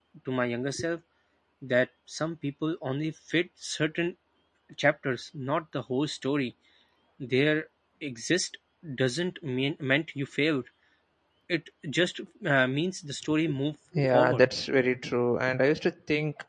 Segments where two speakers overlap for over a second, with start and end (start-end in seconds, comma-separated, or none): none